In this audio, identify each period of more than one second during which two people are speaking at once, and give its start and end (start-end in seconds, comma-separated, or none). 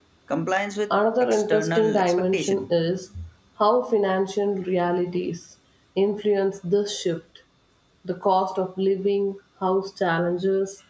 1.2-2.7